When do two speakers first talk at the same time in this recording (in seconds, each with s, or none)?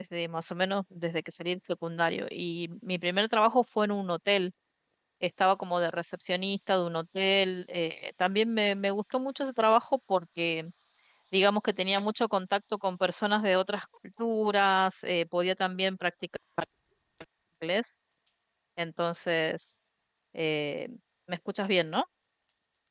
none